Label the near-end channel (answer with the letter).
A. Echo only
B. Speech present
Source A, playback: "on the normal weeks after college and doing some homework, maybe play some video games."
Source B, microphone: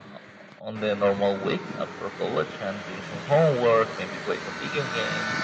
A